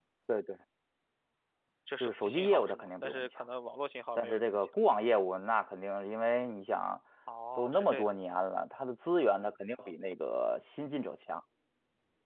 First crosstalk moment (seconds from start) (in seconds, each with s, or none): 2.0 s